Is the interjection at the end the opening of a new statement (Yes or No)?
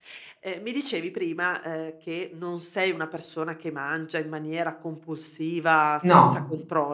No